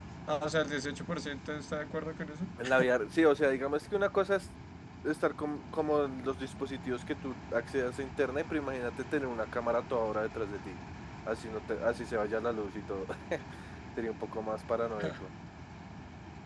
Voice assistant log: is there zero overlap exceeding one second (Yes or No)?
Yes